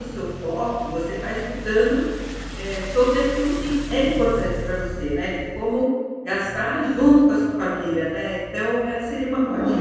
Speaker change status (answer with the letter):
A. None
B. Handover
B